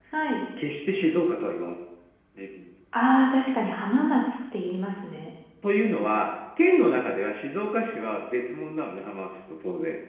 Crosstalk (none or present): none